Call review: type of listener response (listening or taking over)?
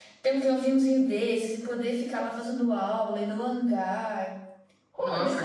taking over